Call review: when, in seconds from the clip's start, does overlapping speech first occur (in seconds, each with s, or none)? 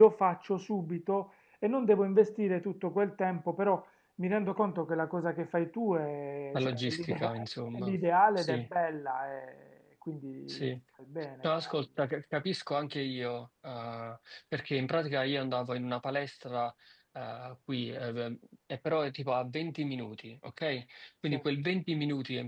6.5 s